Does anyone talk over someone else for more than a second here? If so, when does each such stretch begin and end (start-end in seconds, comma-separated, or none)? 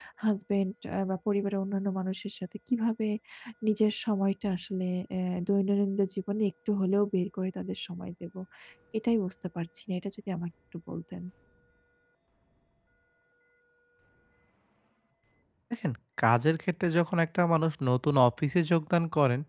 none